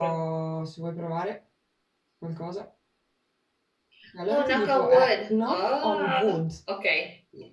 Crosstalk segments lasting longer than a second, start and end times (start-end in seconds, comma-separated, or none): 4.3-6.4